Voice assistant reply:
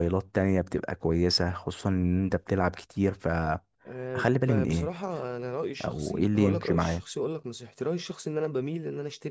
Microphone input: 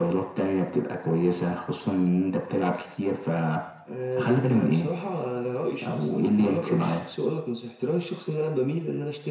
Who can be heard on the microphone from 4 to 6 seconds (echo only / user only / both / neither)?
echo only